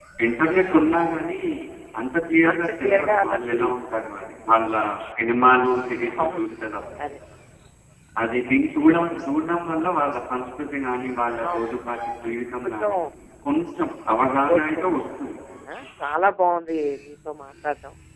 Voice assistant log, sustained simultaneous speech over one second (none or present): present